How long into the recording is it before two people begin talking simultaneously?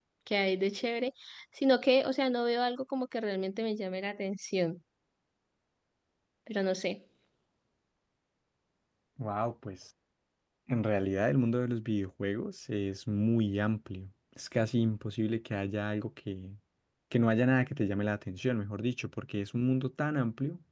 none

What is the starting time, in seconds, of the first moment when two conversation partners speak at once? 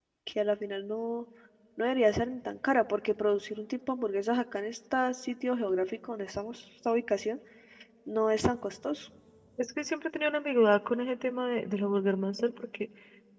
none

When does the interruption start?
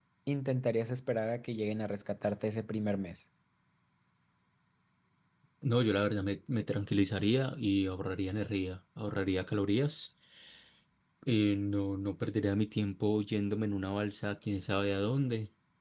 none

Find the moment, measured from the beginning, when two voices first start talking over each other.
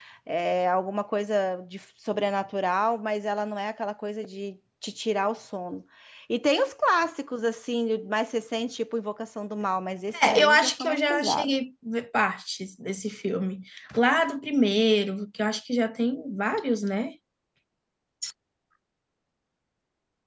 10.1 s

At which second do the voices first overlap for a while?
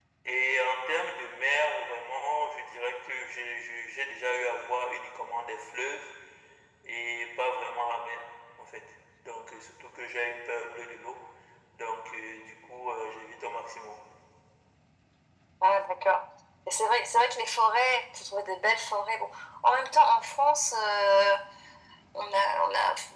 none

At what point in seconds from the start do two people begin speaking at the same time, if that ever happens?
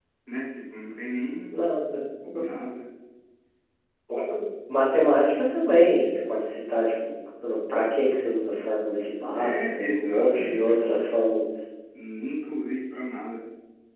9.3 s

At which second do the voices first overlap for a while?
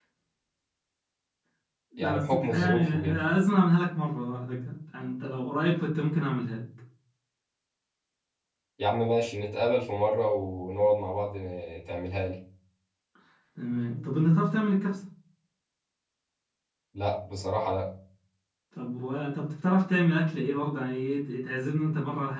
2.0 s

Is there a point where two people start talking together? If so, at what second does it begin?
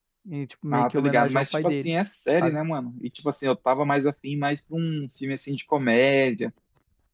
0.7 s

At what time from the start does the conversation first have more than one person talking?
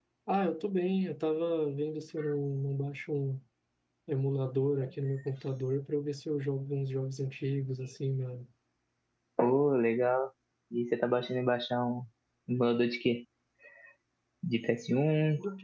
none

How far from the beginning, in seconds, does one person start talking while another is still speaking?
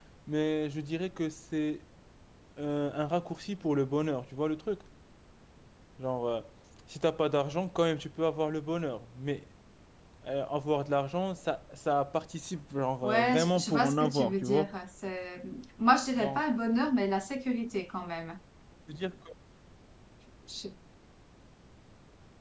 13.0 s

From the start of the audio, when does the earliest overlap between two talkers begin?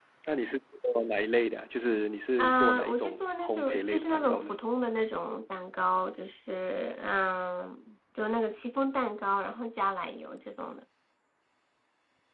2.4 s

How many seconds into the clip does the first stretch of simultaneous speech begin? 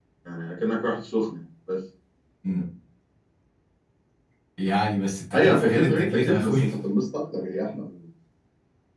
5.3 s

